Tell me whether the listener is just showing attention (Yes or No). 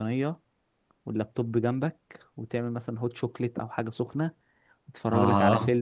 Yes